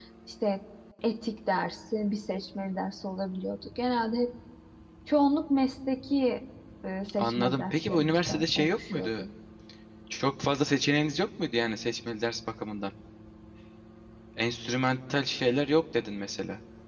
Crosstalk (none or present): present